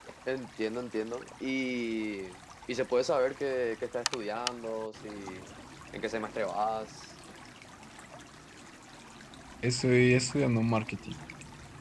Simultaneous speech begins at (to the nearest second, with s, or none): none